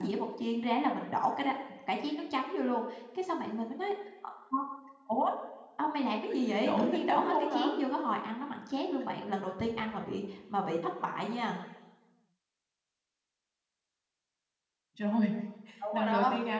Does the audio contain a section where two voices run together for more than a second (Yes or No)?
Yes